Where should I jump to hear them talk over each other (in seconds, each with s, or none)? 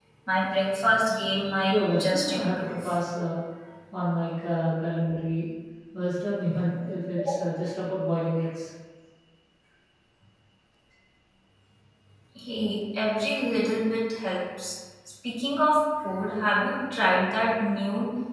1.7 s